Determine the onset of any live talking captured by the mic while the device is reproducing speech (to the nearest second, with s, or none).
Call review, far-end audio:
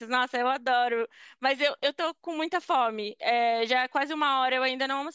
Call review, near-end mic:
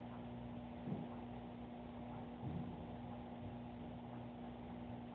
none